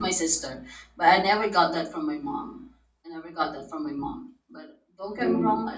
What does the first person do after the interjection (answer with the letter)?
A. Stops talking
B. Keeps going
A